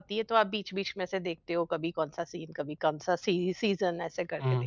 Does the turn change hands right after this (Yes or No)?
Yes